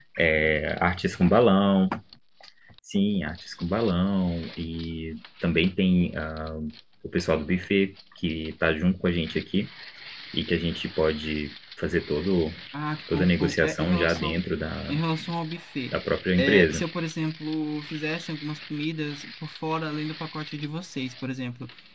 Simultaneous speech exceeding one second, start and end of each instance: 13.1-14.4

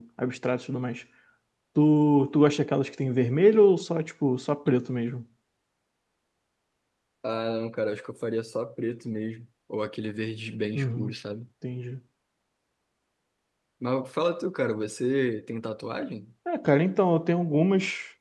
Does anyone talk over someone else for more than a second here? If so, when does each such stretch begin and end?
none

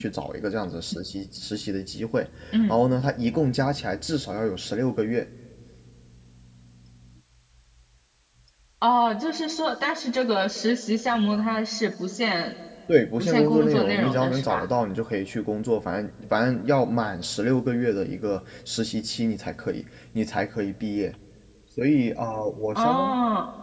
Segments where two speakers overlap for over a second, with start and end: 13.2-14.7

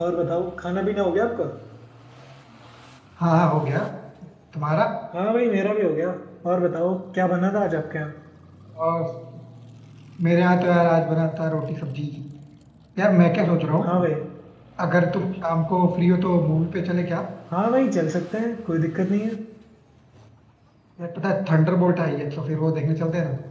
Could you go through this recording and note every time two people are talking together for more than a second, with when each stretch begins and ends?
none

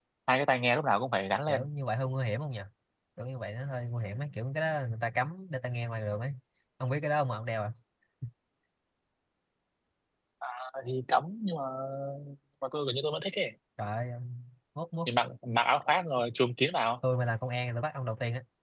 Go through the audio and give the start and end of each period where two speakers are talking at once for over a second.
none

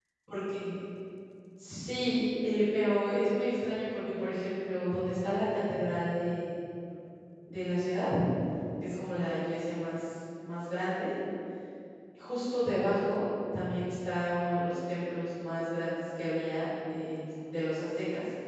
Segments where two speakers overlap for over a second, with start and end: none

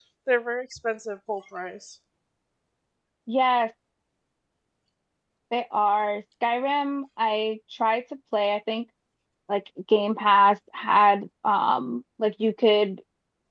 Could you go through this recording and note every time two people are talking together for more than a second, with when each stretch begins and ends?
none

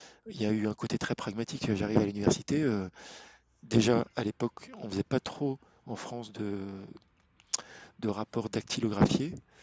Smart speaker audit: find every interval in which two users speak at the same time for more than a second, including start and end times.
none

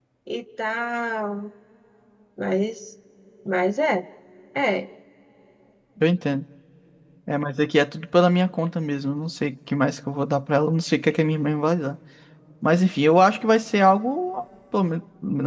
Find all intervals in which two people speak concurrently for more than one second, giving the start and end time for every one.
none

